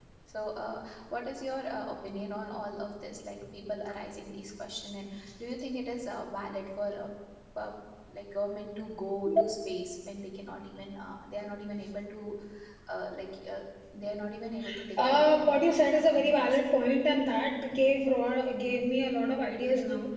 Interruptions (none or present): present